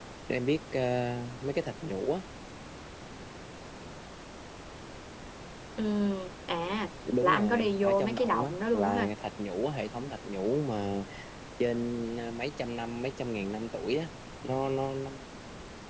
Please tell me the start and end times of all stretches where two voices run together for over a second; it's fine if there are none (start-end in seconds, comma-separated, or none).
7.2-9.1